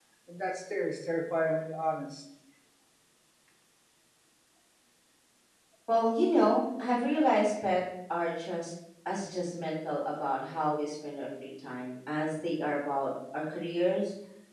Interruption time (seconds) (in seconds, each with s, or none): none